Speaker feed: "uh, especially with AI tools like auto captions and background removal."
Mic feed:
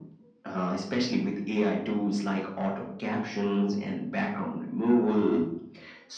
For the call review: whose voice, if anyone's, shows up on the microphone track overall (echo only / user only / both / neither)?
echo only